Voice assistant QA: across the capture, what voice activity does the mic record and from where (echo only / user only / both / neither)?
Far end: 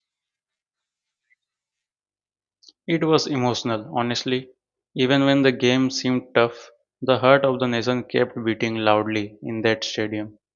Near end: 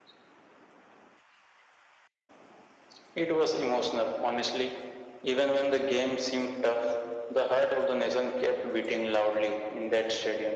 echo only